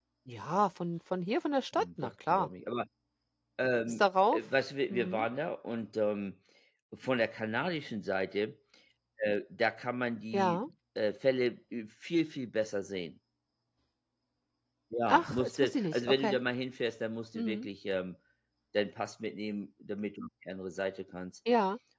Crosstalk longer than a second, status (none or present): present